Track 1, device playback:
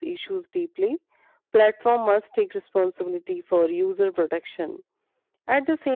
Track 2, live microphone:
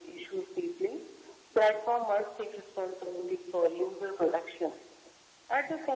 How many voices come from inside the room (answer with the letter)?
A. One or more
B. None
B